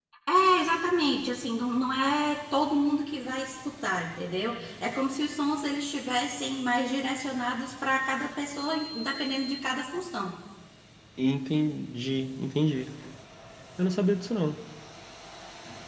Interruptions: none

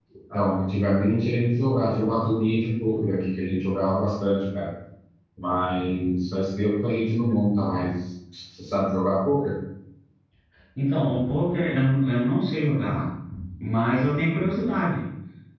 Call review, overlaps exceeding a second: none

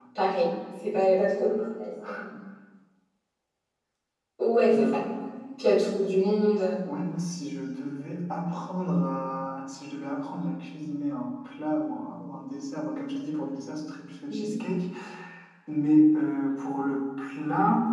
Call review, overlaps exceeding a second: none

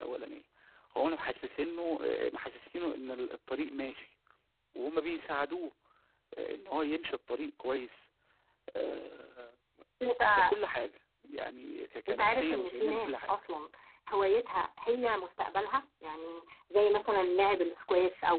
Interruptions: present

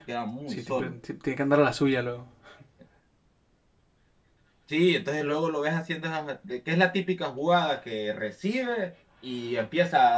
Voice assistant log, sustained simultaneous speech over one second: none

